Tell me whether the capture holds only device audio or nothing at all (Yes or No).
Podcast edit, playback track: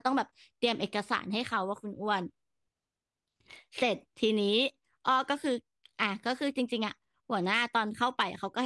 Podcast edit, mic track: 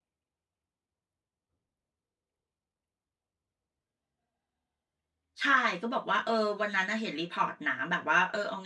No